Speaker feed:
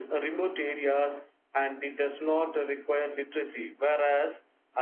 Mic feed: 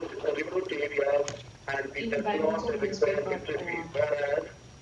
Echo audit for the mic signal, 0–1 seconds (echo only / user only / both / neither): echo only